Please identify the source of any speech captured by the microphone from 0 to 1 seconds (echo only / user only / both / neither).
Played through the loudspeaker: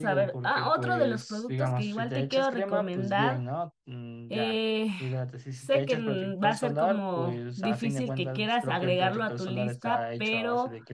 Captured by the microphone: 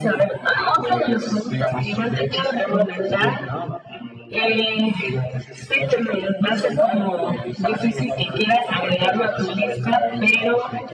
echo only